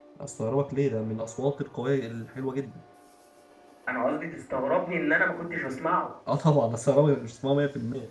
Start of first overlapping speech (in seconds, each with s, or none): none